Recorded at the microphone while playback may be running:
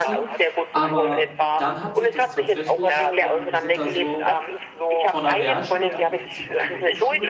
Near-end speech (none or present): present